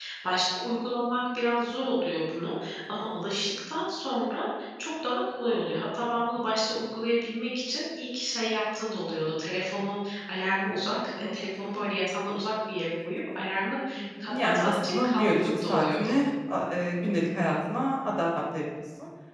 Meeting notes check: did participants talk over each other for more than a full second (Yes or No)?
Yes